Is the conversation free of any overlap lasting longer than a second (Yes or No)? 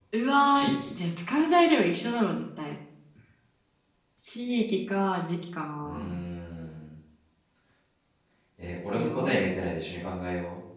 Yes